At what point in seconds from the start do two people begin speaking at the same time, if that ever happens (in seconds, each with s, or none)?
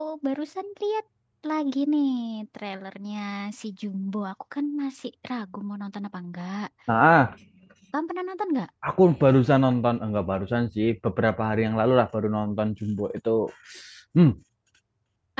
none